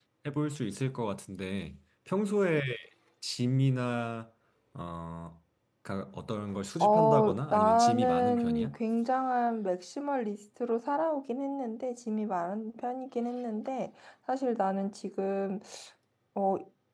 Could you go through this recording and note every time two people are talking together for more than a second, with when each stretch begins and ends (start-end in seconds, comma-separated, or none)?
6.8-8.8